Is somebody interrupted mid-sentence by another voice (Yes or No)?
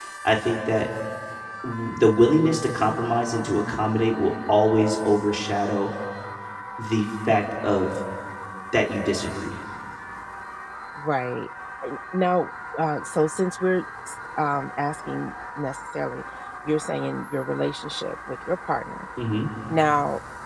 No